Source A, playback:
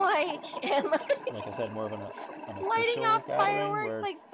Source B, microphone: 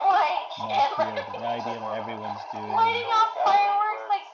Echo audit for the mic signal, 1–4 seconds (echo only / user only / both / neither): both